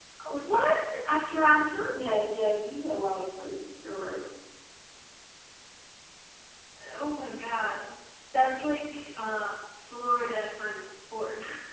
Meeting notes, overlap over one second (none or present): none